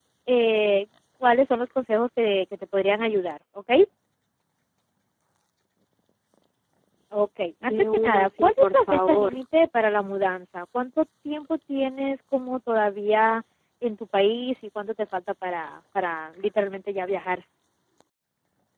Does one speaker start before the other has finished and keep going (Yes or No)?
Yes